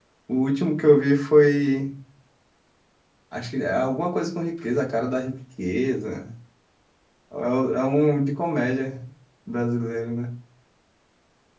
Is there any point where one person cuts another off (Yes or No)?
No